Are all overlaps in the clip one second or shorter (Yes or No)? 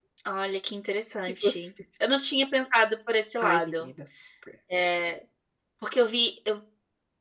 Yes